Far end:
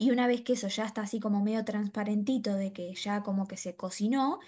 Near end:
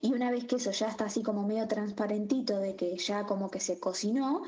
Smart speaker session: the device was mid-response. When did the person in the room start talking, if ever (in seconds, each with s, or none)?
none